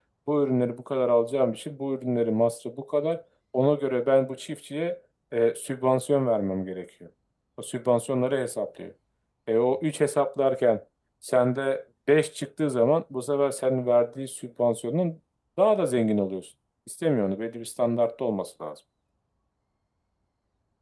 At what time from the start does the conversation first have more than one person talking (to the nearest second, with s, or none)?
none